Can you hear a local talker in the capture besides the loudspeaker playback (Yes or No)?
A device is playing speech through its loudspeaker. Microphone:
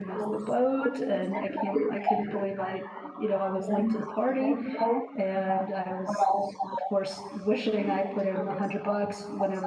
Yes